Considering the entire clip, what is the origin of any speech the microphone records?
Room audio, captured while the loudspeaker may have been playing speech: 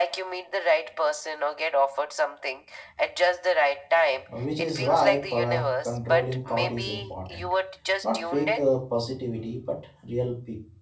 both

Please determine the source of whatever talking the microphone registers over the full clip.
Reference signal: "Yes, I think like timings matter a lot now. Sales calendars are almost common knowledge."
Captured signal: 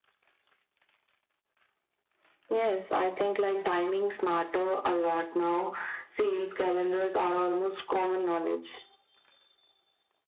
echo only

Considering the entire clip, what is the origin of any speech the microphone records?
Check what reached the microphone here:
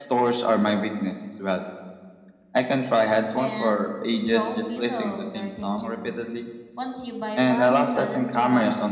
both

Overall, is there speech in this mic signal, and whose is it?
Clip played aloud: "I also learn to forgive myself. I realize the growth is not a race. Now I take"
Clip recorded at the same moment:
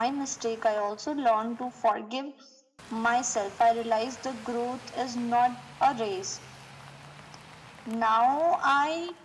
echo only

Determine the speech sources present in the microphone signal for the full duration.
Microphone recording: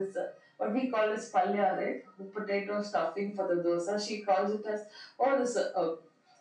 echo only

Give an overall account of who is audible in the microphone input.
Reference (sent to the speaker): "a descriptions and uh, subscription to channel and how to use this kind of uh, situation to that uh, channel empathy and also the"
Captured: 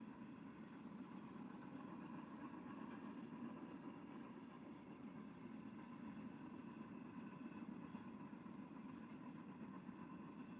neither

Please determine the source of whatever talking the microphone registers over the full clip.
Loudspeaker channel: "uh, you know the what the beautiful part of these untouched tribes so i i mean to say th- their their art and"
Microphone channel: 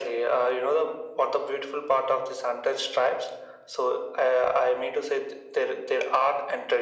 echo only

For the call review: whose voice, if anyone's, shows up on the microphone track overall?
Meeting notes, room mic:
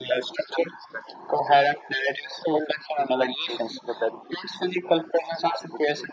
echo only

